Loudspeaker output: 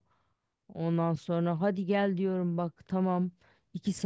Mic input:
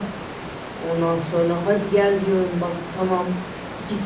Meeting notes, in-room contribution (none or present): none